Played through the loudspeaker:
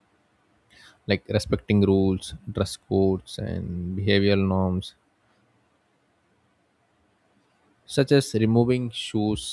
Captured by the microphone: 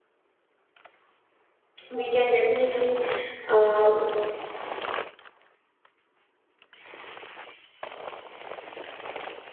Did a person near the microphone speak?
Yes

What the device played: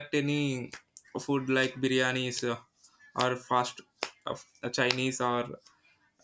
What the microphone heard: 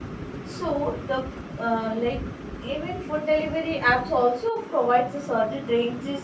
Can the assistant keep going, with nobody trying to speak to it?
No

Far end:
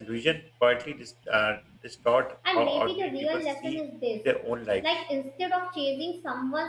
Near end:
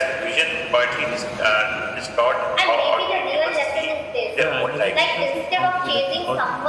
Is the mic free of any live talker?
No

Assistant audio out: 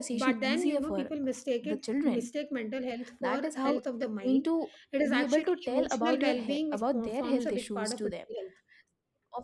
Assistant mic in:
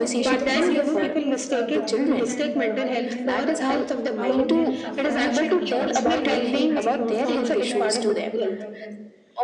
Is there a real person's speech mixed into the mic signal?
Yes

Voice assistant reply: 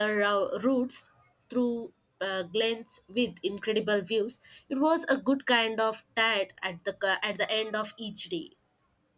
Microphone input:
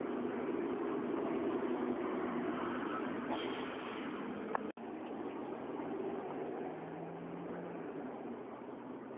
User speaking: No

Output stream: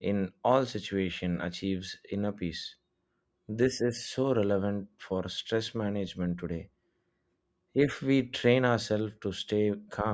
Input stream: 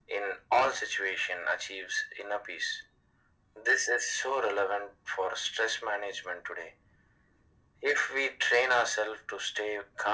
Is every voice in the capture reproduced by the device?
Yes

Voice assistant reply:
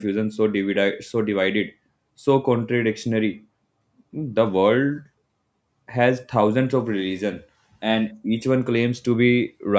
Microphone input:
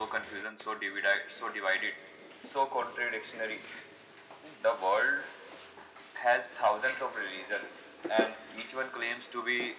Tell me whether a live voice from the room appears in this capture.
No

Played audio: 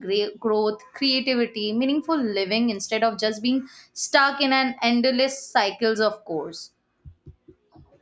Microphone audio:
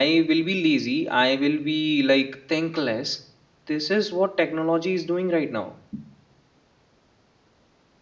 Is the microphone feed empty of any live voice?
No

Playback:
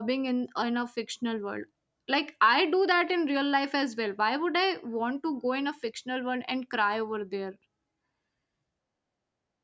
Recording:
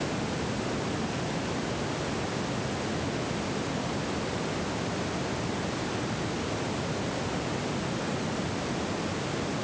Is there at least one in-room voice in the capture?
No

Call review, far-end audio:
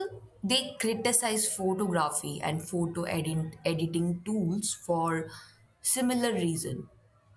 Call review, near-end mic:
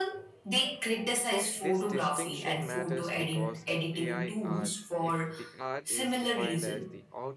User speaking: Yes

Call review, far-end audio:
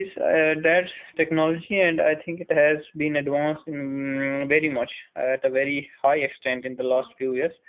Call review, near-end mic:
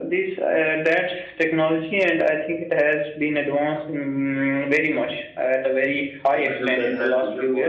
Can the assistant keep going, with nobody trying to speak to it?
No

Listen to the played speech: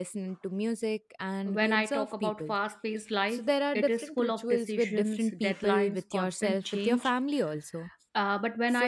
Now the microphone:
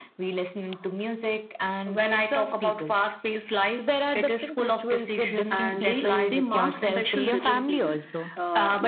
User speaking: Yes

